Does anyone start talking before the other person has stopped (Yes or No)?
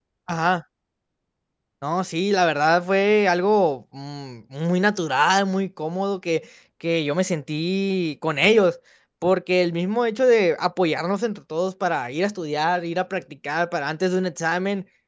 No